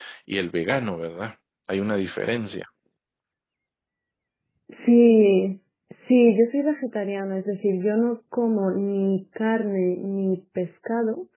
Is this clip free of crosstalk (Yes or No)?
Yes